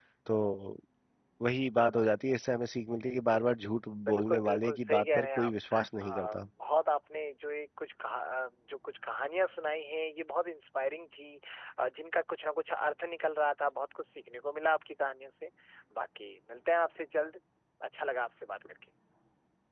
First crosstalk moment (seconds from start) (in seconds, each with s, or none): 4.1 s